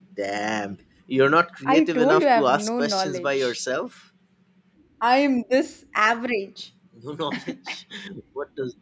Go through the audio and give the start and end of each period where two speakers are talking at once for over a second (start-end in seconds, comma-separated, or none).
1.6-3.5